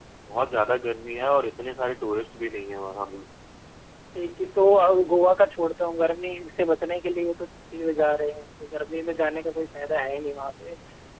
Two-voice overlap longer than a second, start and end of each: none

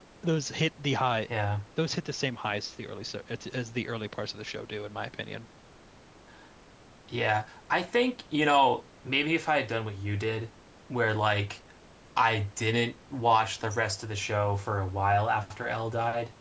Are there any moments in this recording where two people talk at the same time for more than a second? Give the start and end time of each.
none

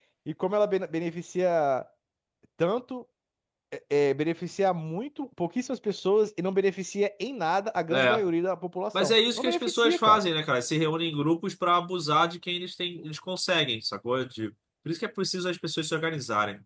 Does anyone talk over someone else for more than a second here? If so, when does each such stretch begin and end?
9.0-10.2

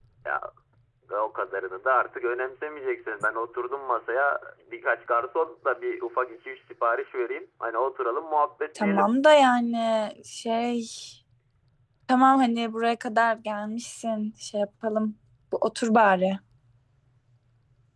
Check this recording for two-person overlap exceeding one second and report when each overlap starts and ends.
none

